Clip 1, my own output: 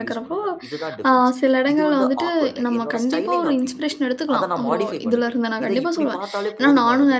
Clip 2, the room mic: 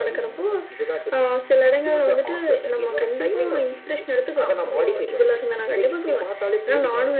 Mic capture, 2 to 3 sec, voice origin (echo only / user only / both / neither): echo only